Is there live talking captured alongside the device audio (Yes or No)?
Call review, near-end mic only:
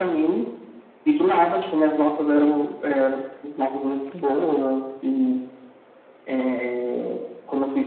No